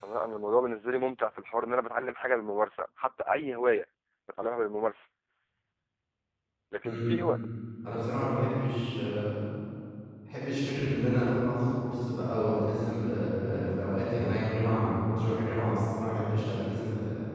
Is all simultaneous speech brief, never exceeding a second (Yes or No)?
Yes